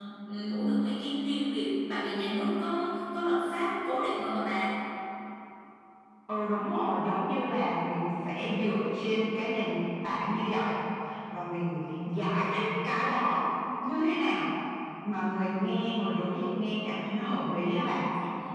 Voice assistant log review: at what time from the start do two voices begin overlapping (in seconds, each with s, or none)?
none